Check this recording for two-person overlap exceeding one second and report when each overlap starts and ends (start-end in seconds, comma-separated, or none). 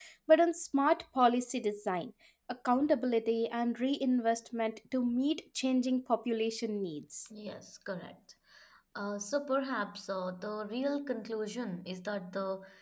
none